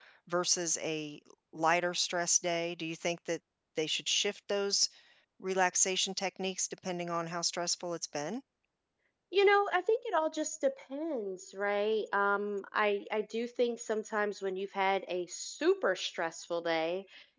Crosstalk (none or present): none